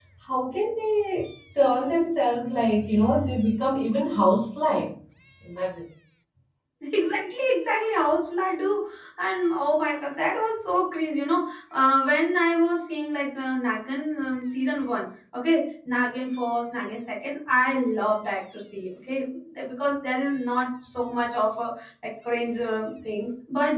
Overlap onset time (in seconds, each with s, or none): none